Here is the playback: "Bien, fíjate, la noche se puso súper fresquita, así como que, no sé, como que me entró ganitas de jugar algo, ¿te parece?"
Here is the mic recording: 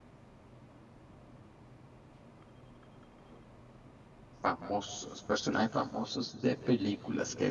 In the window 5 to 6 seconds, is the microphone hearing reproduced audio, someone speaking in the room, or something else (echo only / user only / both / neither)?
user only